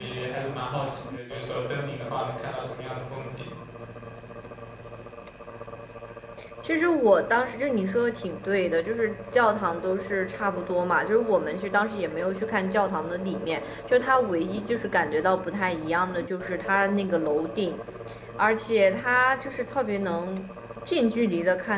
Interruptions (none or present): none